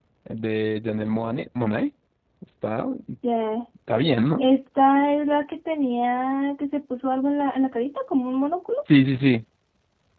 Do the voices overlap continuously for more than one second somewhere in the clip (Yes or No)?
No